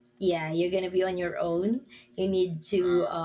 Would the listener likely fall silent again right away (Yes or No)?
Yes